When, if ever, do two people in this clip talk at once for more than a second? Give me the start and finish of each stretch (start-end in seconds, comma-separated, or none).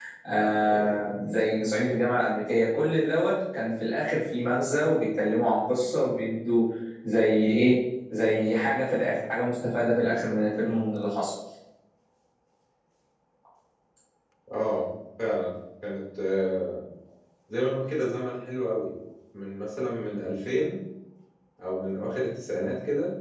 none